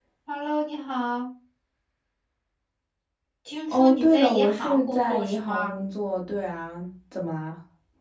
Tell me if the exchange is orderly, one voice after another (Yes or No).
No